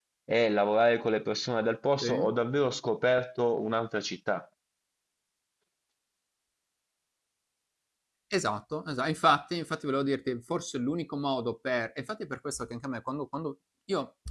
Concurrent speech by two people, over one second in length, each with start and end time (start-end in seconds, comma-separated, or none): none